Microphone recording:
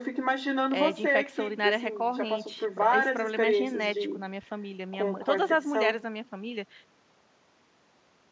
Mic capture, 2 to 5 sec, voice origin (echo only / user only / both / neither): both